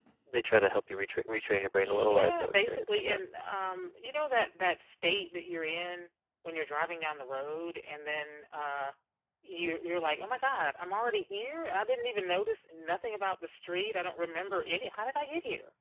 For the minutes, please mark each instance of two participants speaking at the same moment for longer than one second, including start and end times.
1.8-3.2

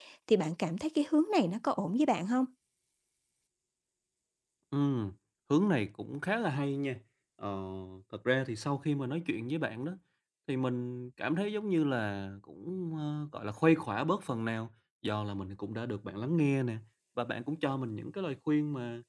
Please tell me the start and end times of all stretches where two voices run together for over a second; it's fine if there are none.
none

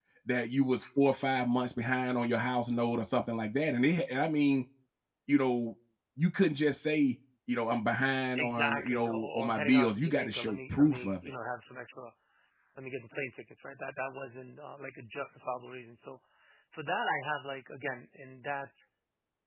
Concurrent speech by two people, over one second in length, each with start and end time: 8.4-11.3

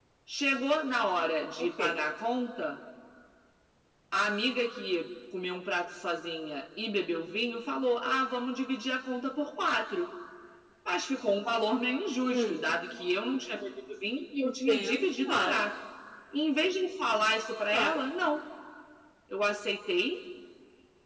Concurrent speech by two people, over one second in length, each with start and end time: 14.4-15.6

